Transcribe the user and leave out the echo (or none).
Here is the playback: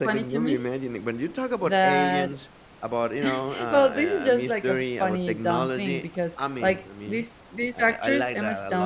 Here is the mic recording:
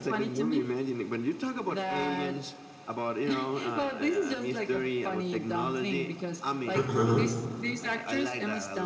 Uh-huh.